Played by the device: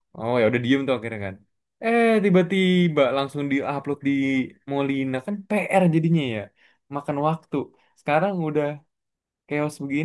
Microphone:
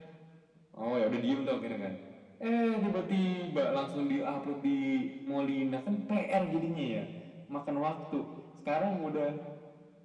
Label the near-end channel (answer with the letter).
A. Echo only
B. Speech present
A